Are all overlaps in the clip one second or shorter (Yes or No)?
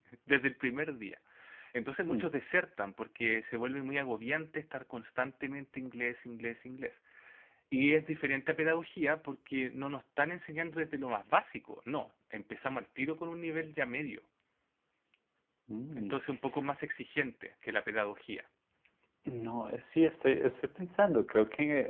Yes